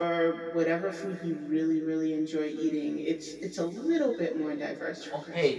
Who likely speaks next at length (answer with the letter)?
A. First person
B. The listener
B